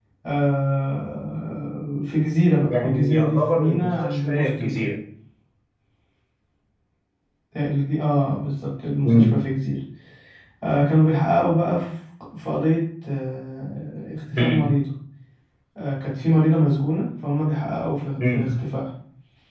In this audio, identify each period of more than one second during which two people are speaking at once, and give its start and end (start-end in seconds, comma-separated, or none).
2.7-4.9